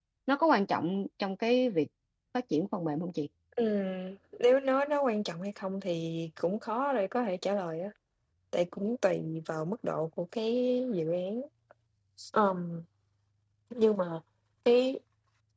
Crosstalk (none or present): none